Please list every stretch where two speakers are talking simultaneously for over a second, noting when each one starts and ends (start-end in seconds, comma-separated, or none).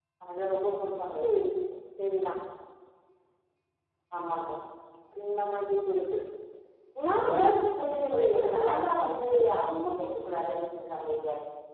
7.4-8.7